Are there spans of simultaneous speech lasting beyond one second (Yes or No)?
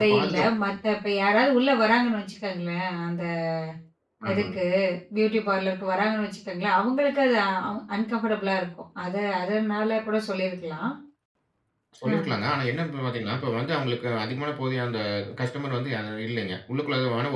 No